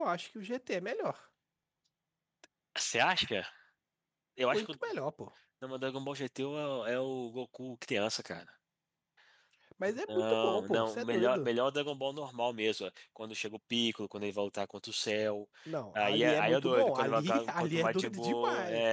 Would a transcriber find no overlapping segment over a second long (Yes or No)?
No